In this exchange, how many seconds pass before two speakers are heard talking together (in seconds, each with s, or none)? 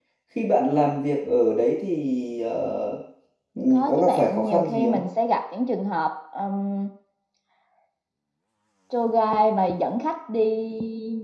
3.7 s